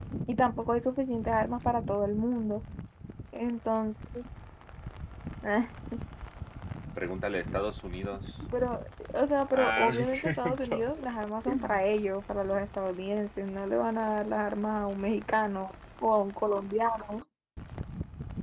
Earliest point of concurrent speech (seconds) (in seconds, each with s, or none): 9.5 s